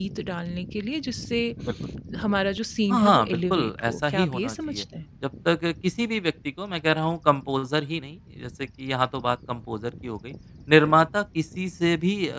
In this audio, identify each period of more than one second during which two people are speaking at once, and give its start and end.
2.9-4.8

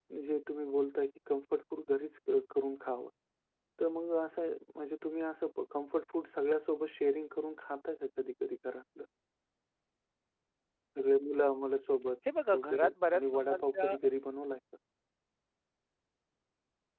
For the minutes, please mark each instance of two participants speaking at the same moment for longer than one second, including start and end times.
12.5-13.9

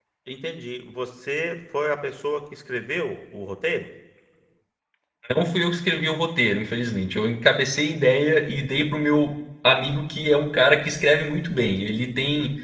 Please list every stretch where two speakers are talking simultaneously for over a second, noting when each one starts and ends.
none

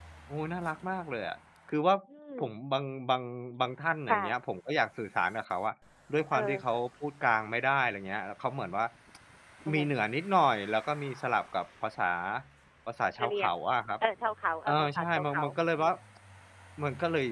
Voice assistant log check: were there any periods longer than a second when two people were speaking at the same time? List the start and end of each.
14.7-15.9

